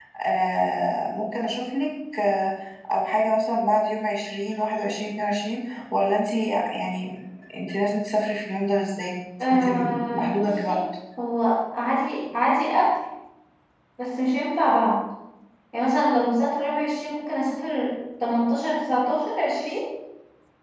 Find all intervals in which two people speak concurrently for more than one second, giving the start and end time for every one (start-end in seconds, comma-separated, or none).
9.5-10.8